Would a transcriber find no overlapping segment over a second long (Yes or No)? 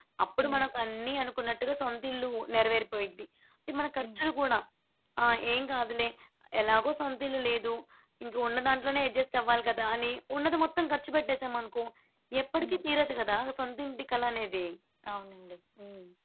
Yes